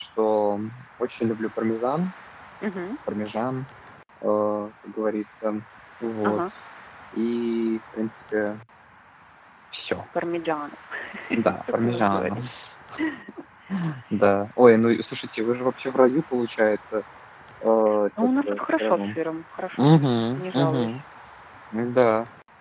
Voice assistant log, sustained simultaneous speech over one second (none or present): present